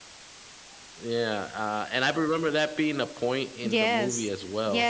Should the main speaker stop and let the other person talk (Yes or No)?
Yes